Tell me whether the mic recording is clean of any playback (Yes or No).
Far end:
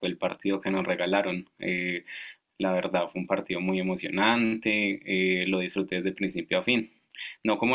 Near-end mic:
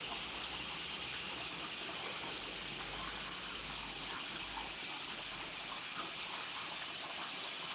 Yes